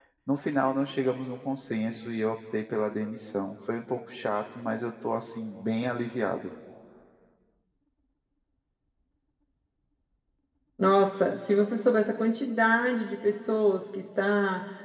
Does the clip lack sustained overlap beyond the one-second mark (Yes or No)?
Yes